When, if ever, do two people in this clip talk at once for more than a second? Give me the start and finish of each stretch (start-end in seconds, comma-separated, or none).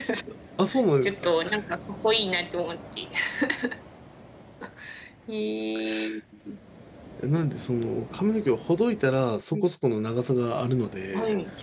none